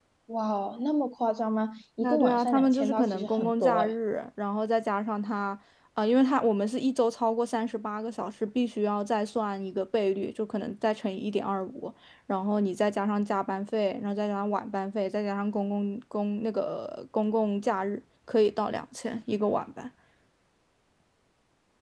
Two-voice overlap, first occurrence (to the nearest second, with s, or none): 2 s